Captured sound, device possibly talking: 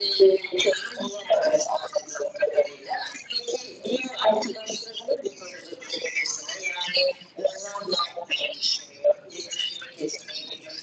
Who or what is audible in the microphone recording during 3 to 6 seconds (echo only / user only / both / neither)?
echo only